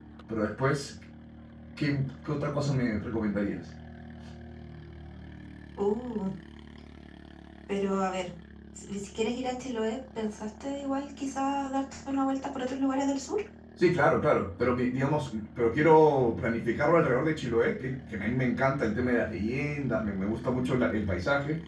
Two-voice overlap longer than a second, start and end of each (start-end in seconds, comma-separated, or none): none